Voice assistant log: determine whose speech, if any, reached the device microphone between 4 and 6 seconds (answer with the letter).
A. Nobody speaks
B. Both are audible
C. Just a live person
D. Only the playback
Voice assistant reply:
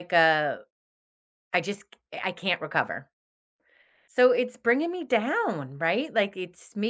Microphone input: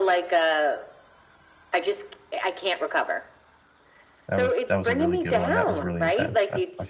B